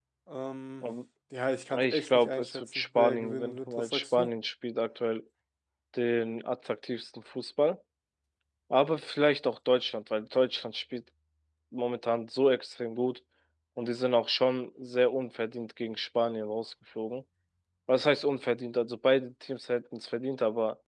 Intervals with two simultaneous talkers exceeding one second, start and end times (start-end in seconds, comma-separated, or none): 1.8-4.3